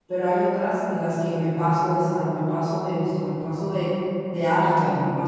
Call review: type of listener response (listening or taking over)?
listening